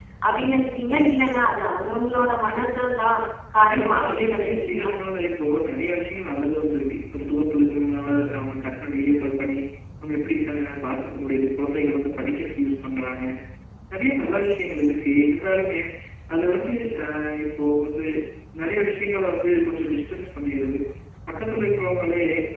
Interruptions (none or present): present